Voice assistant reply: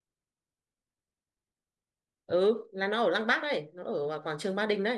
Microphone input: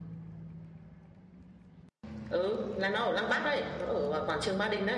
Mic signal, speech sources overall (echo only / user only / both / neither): echo only